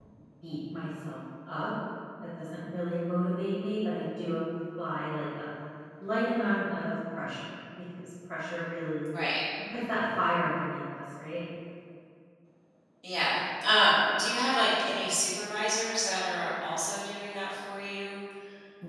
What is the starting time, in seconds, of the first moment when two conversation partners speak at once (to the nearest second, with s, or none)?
none